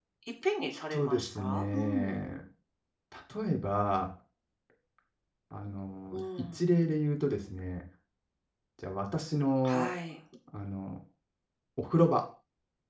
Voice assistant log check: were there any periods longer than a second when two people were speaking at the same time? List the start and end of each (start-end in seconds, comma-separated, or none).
0.9-2.2